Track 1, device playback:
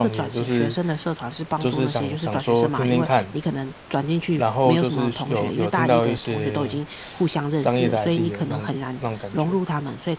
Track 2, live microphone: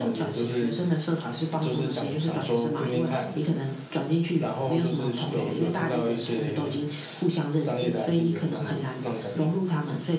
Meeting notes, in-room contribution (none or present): none